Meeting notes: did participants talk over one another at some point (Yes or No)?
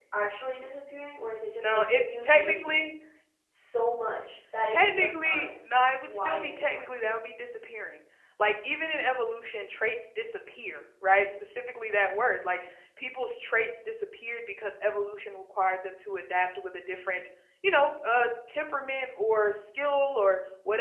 Yes